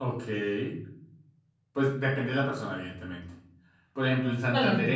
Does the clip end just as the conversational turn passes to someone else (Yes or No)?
No